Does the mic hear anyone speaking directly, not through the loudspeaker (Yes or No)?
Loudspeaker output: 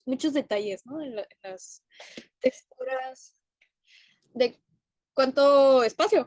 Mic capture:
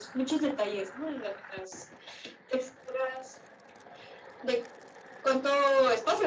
No